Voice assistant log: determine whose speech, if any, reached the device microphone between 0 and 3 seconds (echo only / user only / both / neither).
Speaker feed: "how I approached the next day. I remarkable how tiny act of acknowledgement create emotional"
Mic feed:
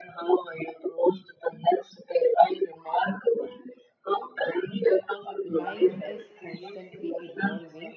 echo only